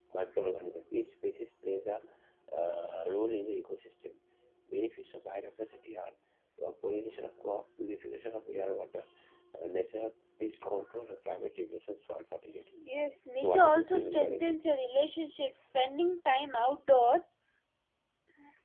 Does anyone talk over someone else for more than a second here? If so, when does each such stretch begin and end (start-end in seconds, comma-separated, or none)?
13.3-14.7